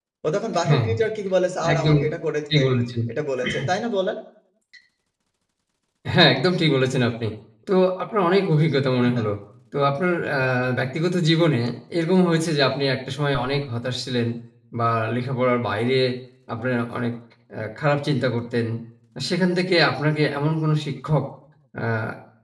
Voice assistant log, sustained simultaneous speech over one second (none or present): none